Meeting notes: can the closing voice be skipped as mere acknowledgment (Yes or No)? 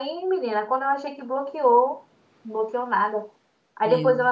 Yes